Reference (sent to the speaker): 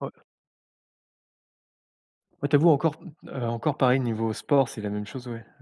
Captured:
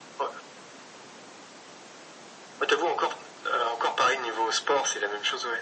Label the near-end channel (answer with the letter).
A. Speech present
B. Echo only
B